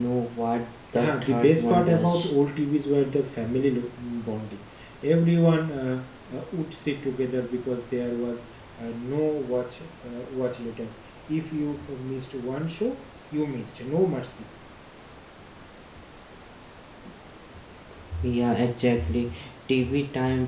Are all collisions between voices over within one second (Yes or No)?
No